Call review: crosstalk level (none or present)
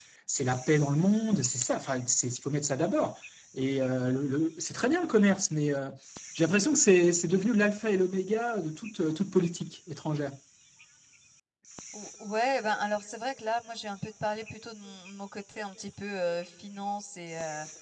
none